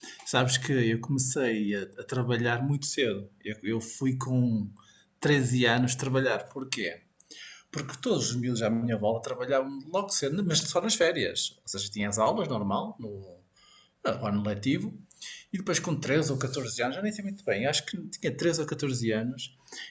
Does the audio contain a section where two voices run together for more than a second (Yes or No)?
No